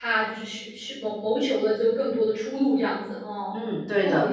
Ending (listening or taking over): taking over